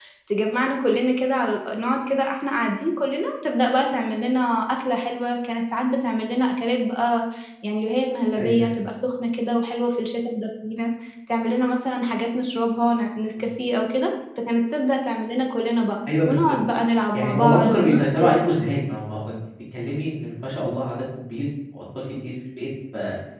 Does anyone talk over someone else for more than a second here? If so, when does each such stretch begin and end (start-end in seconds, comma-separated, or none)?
17.1-18.4